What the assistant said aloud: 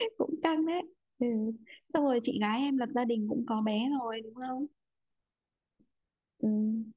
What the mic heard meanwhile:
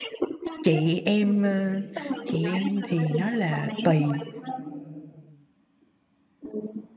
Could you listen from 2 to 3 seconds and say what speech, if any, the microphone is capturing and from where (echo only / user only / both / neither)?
both